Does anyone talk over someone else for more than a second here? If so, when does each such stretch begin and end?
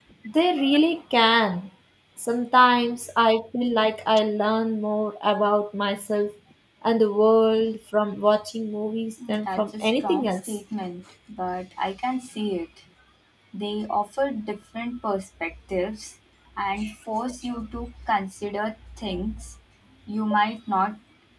9.3-10.6

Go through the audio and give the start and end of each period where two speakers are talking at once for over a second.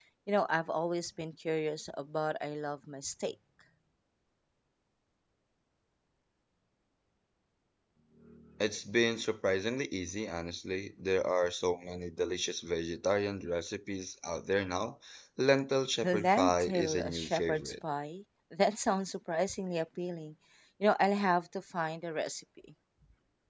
16.0-17.7

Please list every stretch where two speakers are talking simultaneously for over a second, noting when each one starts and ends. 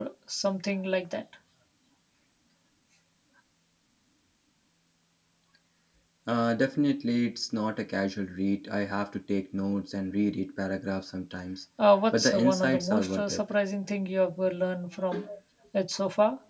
12.1-13.4

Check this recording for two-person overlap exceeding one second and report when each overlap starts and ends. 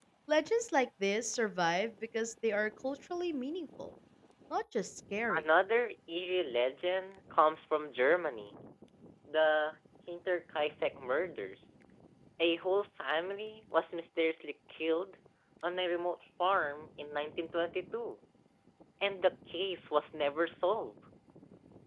none

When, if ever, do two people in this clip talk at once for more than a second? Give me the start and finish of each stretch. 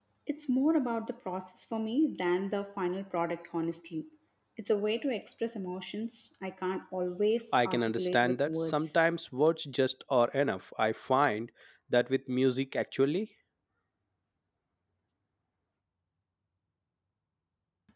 7.5-9.0

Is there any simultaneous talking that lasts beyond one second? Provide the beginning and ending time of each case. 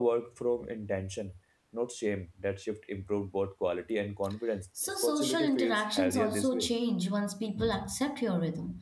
4.9-6.7

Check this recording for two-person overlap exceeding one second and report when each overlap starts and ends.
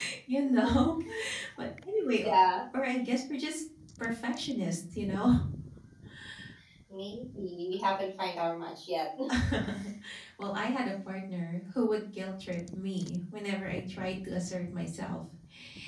none

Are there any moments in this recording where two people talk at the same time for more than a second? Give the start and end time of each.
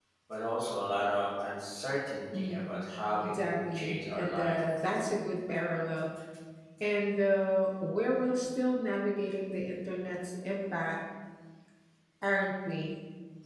3.2-4.6

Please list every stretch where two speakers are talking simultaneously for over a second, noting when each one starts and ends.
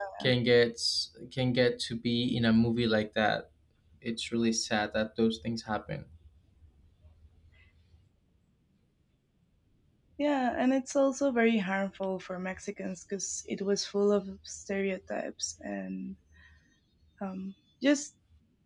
none

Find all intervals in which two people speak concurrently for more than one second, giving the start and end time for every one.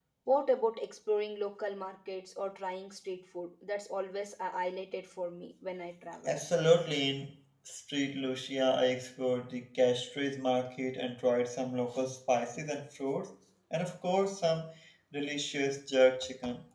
none

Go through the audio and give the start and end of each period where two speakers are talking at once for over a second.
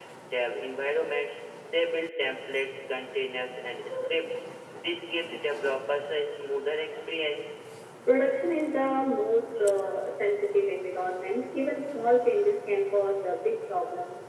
none

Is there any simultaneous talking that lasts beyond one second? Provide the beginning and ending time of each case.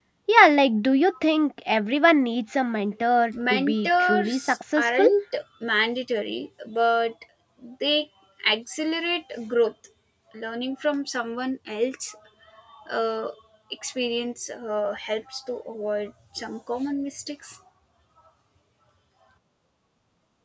3.5-5.0

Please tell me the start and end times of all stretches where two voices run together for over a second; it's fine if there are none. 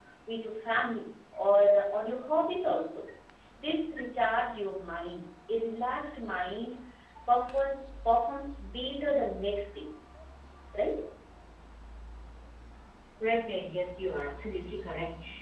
none

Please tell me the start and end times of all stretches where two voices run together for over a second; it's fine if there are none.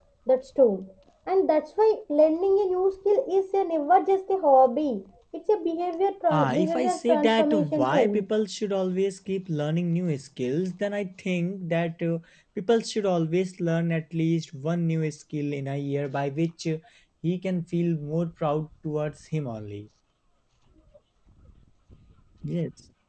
6.3-8.2

